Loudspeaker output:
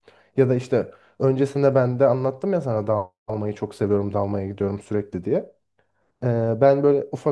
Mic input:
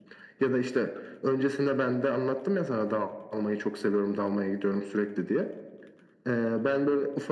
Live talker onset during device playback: none

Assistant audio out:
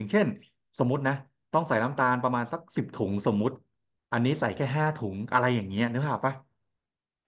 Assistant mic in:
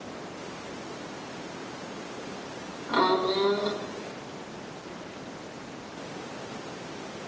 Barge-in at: 2.9 s

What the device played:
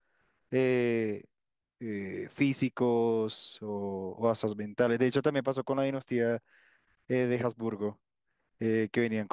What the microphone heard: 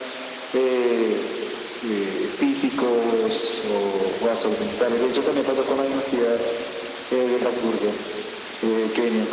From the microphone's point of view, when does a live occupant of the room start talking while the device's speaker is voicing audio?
none

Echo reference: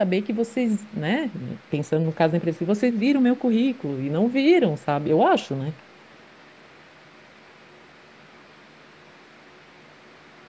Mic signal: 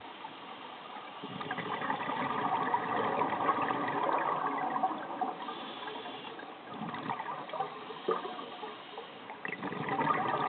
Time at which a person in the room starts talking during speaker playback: none

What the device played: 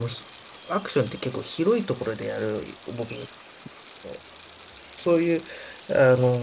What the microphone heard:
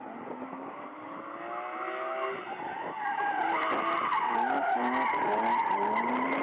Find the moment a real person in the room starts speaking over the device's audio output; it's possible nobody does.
none

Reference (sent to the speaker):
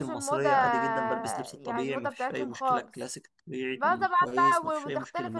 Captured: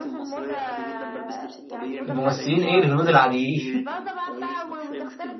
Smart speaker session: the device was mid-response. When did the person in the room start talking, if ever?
2.1 s

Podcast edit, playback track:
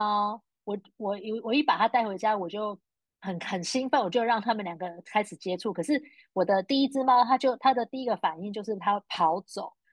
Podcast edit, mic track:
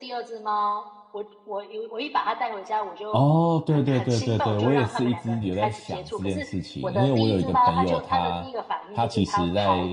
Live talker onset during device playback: 3.1 s

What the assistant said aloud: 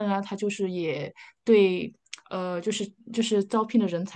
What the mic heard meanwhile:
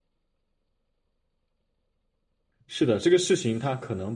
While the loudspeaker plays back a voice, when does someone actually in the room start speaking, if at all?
2.7 s

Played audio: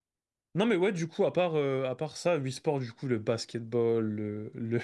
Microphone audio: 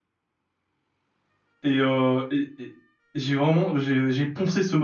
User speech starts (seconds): 1.6 s

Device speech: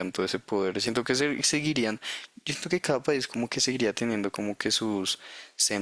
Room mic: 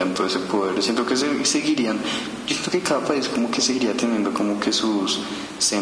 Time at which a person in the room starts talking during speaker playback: none

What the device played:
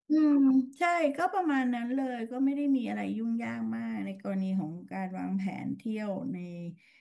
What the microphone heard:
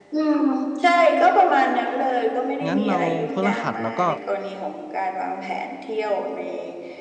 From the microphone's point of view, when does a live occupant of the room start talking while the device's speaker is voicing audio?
2.7 s

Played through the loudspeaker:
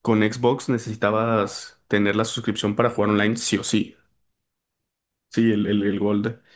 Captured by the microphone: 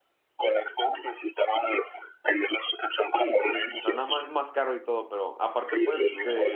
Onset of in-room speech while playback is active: 3.2 s

